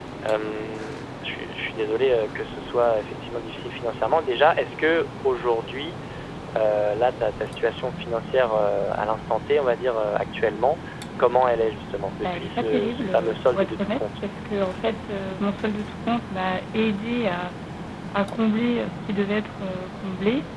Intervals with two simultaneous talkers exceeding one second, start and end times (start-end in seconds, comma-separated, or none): 12.2-14.0